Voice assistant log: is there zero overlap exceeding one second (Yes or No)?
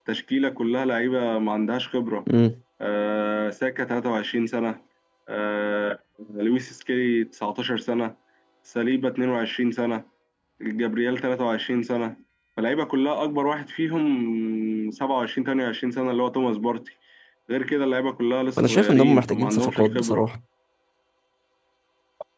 No